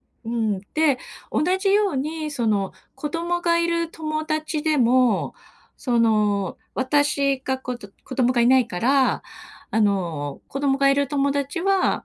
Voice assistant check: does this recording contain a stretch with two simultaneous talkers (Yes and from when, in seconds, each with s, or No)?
No